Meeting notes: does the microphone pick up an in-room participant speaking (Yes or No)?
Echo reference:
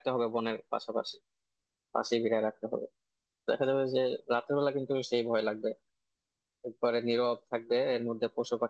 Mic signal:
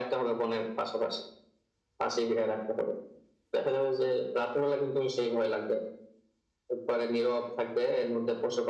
No